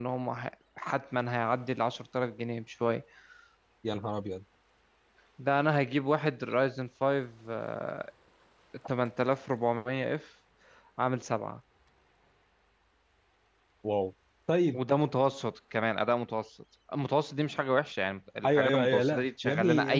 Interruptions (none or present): present